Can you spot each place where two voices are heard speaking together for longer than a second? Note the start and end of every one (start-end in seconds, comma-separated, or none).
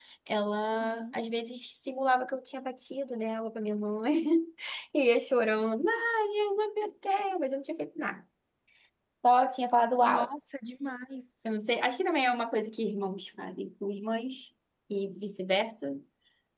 none